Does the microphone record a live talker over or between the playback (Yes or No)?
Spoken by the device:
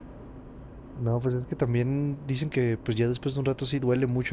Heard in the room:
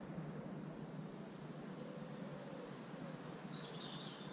No